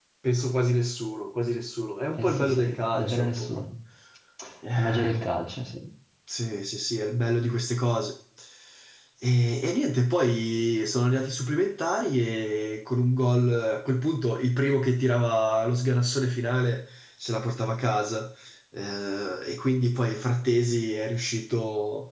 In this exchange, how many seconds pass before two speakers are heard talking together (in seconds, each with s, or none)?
2.2 s